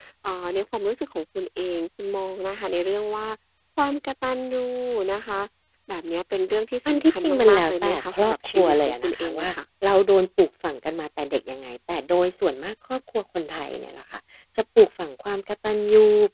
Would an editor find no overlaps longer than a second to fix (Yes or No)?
No